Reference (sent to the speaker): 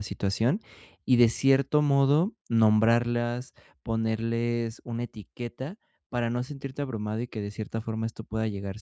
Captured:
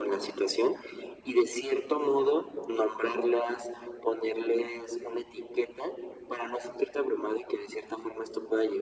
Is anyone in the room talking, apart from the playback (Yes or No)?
No